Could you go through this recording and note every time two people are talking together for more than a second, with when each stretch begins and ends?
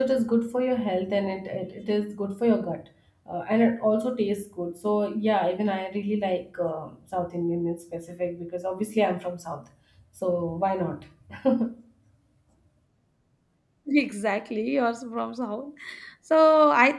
none

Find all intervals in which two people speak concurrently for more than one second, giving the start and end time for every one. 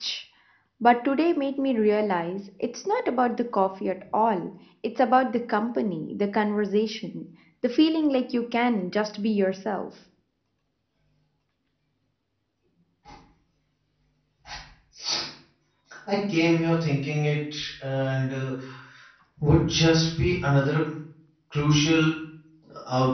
none

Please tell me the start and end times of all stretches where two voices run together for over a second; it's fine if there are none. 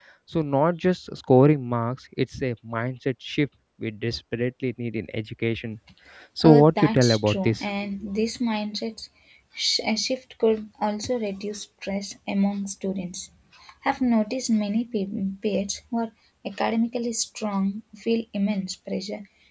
6.4-7.6

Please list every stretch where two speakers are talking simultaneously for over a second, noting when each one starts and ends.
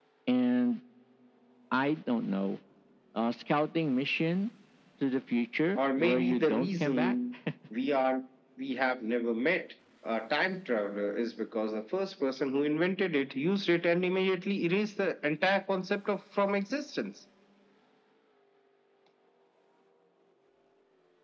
5.8-7.1

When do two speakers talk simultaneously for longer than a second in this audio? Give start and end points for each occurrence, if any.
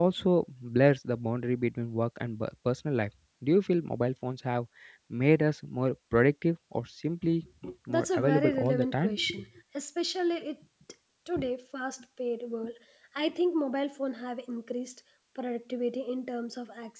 7.9-9.2

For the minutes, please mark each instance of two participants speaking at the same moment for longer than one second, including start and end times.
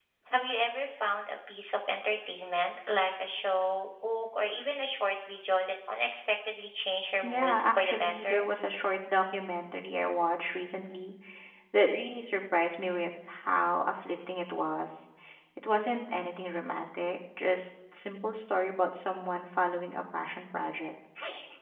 7.2-8.4

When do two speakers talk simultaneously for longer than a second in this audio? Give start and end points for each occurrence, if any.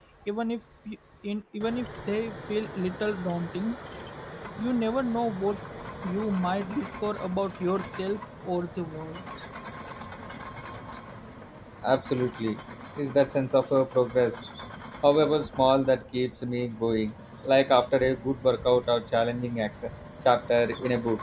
none

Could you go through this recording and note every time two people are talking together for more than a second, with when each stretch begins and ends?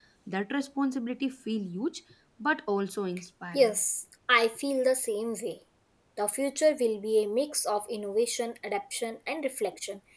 none

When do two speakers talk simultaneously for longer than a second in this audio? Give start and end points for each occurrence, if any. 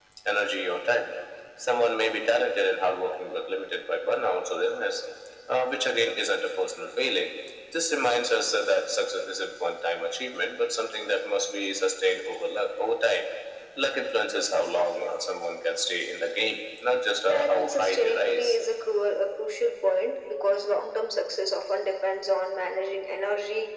17.3-18.6

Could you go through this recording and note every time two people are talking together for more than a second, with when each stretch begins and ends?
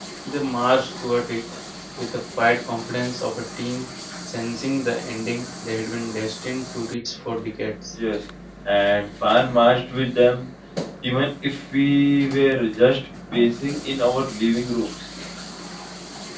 none

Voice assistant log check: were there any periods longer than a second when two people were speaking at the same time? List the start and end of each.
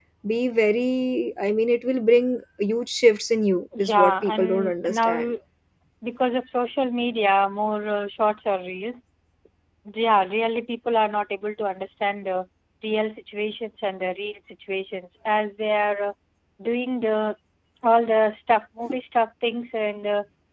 3.9-5.1

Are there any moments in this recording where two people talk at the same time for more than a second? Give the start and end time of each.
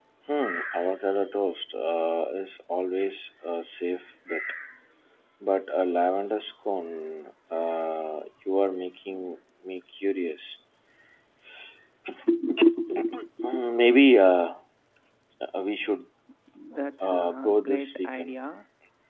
17.0-18.4

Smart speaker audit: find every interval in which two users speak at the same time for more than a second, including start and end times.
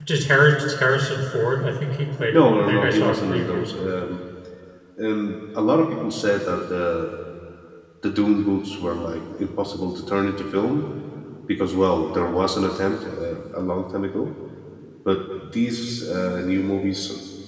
2.3-3.7

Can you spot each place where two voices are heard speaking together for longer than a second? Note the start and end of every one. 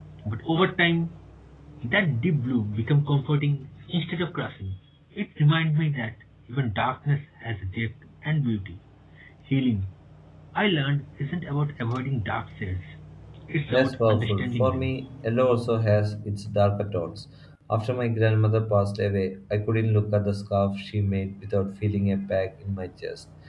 13.7-14.9

